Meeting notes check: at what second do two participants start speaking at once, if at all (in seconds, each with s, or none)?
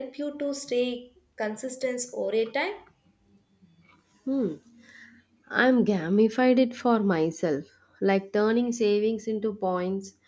none